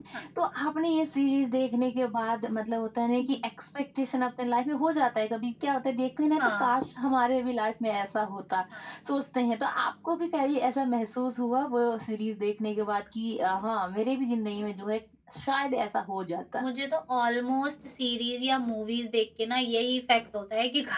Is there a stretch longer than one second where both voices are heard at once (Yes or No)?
No